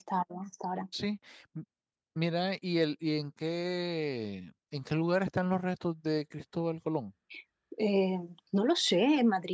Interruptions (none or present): none